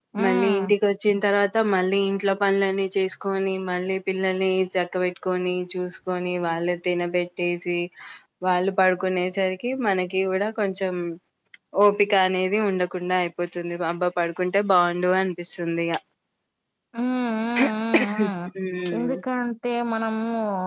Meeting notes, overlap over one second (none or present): none